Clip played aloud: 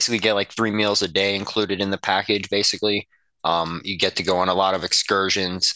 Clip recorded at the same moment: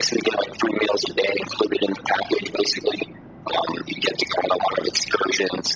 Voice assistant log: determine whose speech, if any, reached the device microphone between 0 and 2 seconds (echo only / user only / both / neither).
echo only